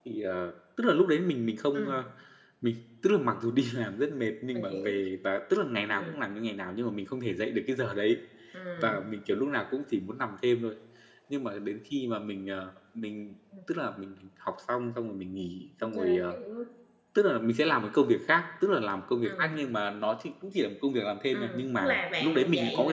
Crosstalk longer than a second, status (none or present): present